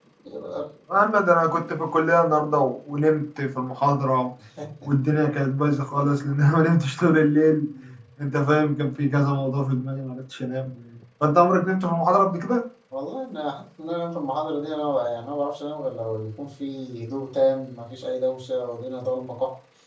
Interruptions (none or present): none